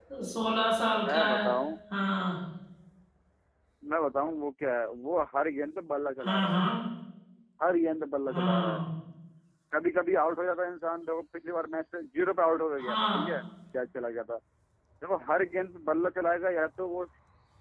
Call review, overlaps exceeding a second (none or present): none